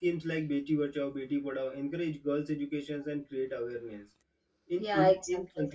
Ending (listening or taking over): listening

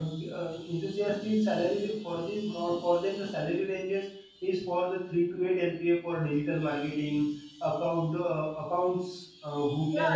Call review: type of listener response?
taking over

